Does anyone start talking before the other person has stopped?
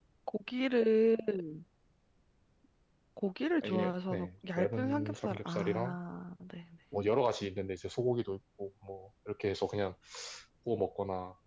Yes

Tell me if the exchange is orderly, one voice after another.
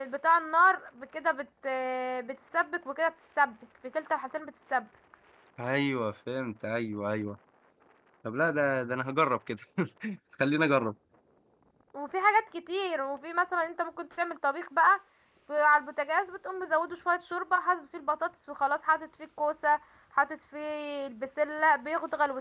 Yes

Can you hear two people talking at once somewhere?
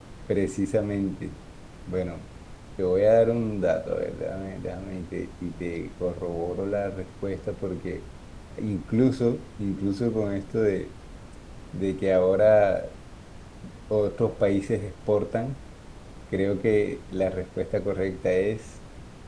No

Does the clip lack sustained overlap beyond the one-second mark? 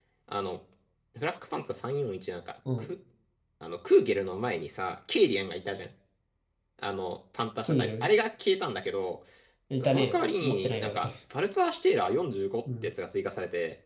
No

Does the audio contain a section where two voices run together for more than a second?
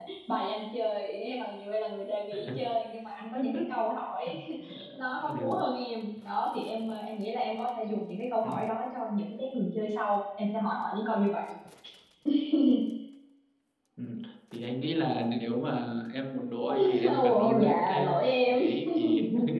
Yes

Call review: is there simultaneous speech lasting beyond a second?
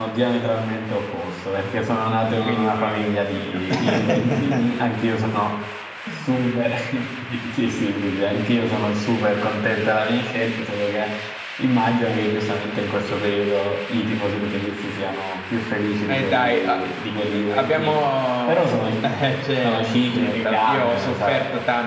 Yes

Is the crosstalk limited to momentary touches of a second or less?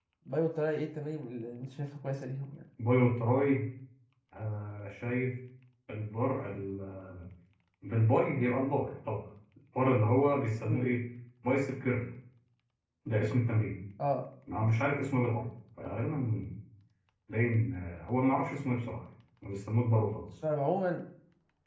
Yes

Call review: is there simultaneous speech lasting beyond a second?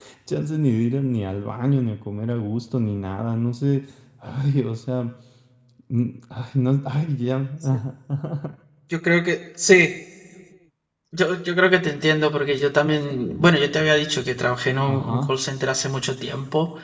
No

